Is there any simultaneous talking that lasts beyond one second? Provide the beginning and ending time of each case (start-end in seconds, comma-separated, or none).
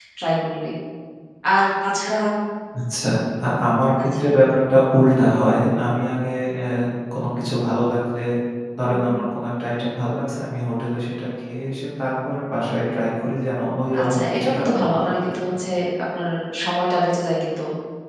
14.0-15.6